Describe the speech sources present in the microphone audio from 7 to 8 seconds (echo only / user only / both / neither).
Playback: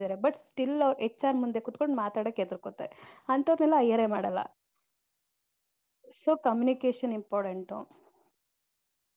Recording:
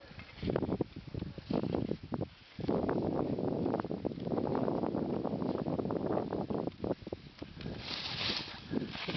neither